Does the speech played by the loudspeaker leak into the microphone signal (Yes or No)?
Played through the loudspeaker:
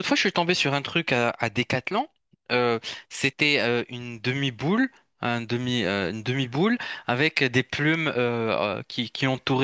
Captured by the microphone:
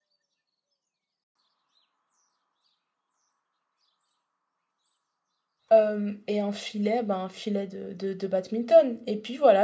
No